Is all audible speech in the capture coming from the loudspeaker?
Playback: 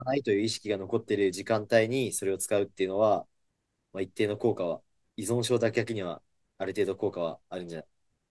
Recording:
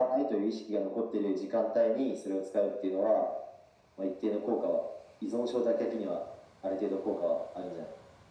Yes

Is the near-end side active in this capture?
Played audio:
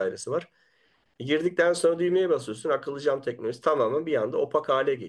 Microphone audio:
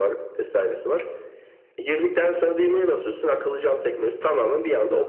No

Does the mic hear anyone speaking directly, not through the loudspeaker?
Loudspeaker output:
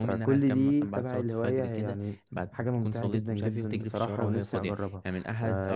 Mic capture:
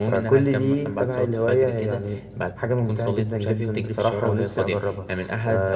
No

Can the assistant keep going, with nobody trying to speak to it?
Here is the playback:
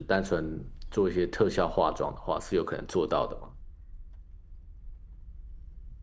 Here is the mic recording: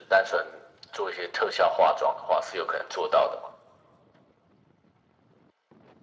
Yes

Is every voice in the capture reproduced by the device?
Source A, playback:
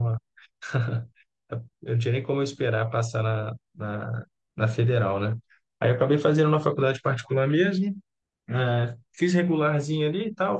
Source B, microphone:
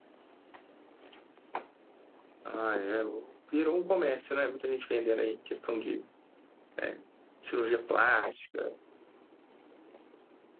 No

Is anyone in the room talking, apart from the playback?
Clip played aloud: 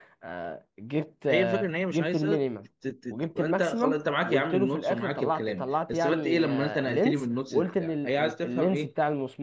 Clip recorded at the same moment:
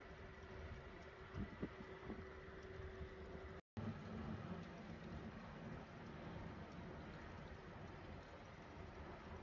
No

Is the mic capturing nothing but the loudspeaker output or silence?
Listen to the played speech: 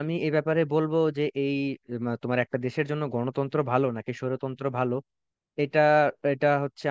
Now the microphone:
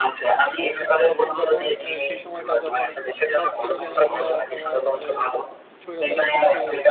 No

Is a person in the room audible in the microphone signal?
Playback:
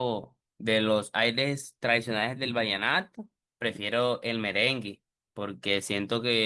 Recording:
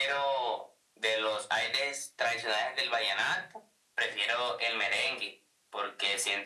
No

